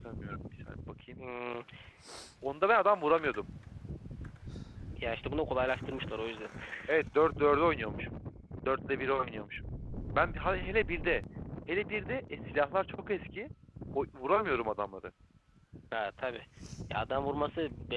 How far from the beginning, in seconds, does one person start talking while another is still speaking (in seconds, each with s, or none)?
none